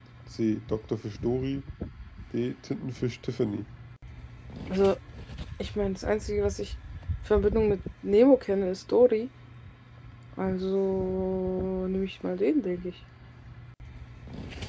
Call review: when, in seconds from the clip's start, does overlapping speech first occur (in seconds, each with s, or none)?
none